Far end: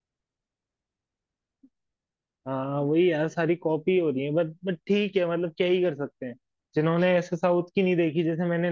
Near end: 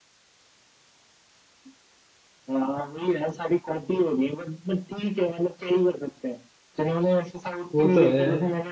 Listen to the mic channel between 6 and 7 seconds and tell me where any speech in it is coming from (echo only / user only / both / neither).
echo only